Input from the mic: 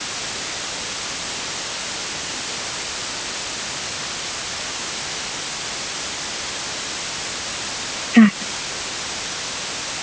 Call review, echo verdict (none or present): none